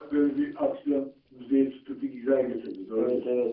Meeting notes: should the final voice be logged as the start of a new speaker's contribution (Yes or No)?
Yes